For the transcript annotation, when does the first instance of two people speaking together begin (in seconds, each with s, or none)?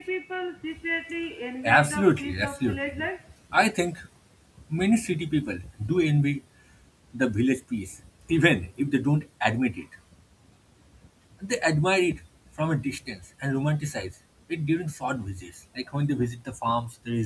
1.6 s